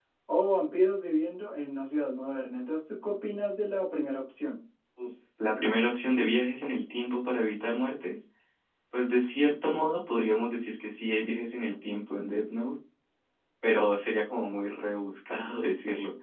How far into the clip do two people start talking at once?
none

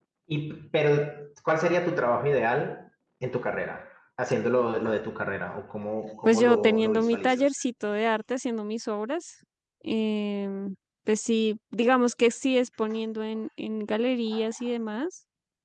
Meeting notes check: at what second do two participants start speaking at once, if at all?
6 s

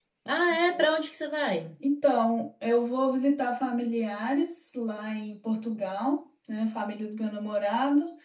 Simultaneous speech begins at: none

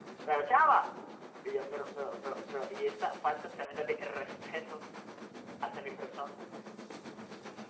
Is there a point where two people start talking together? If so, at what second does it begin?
none

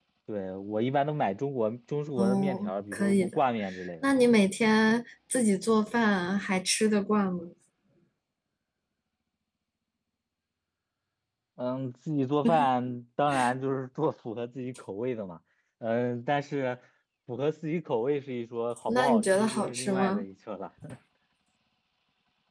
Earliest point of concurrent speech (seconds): 2 s

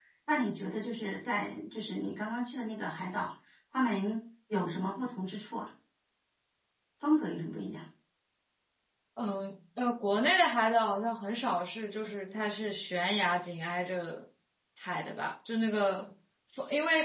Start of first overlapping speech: none

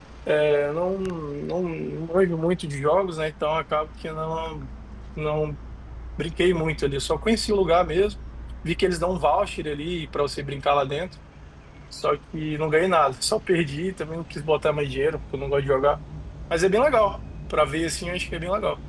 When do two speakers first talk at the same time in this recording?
none

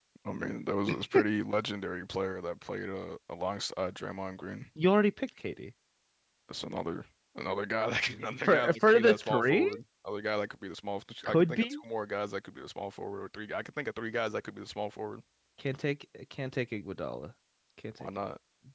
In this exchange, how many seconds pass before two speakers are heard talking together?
8 s

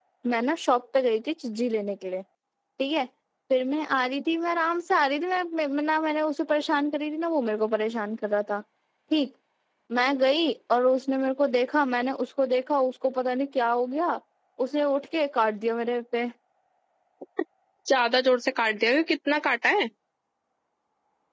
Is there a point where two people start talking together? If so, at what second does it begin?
none

